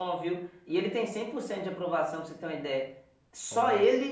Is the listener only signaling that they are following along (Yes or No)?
Yes